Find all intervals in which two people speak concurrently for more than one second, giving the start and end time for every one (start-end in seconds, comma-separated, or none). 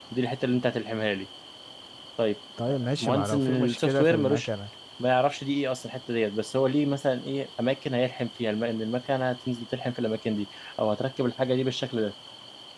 3.0-4.5